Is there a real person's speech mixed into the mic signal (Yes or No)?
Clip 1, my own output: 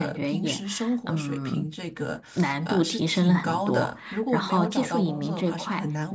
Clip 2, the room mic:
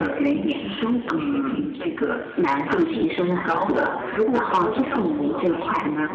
No